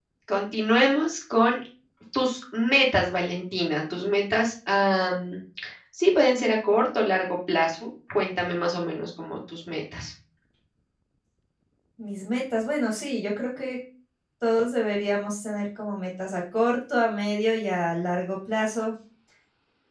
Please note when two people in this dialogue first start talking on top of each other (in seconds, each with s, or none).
none